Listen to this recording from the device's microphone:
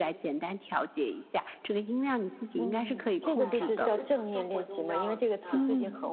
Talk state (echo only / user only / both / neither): both